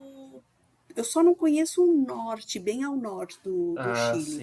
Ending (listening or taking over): listening